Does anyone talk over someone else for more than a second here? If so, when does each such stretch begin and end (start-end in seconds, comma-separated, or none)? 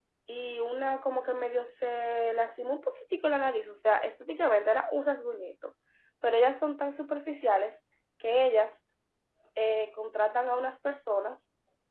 none